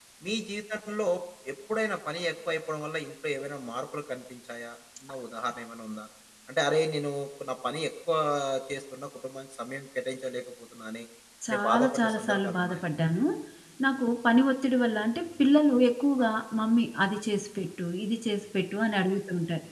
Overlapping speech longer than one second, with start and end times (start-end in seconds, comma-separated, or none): 11.5-12.8